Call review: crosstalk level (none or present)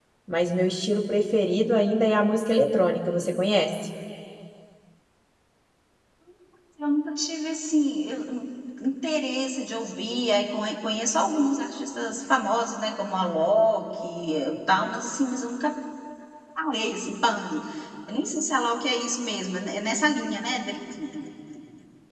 none